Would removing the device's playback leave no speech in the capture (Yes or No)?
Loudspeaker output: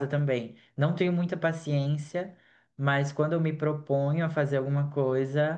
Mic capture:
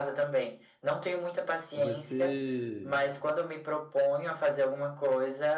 No